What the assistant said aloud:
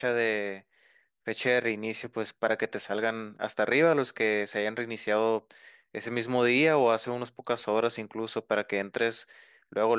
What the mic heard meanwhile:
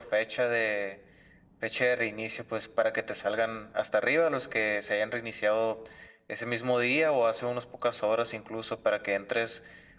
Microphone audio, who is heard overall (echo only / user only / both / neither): echo only